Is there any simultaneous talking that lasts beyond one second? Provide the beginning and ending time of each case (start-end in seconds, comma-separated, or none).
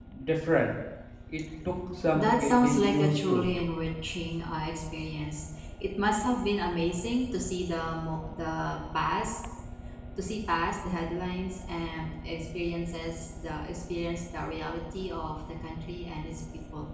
2.1-3.5